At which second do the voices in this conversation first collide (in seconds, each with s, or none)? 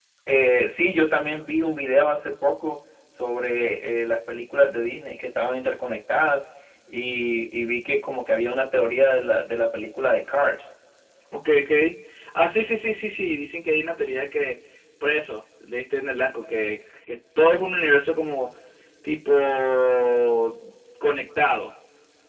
none